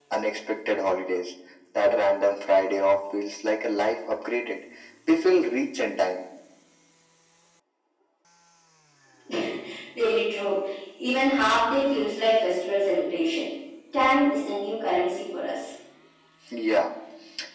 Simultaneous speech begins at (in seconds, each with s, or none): none